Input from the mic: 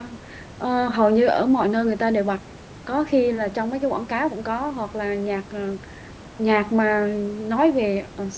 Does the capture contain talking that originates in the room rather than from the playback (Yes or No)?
Yes